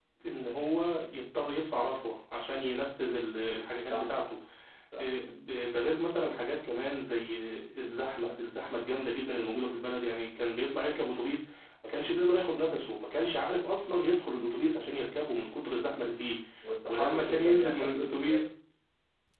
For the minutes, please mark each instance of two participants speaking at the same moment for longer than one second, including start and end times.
16.9-18.4

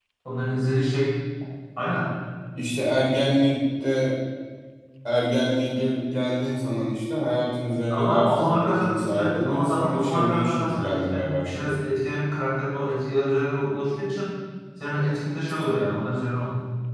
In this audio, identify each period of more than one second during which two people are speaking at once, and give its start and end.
7.9-11.8

